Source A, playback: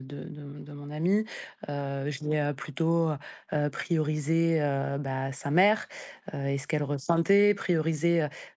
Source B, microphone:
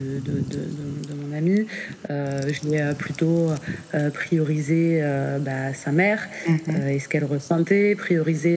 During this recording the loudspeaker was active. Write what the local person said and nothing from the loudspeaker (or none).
Mmh